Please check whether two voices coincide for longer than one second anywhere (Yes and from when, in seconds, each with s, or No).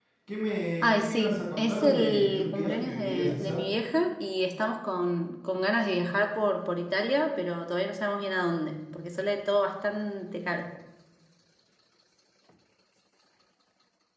Yes, from 0.8 s